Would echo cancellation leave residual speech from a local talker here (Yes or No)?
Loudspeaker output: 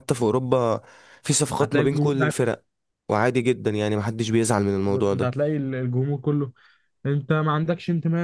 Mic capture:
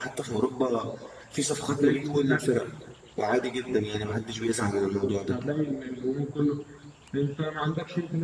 No